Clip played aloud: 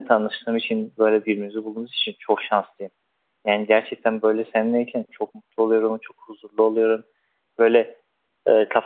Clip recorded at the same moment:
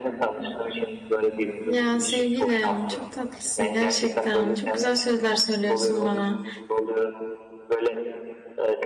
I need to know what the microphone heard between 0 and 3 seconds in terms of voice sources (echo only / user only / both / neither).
both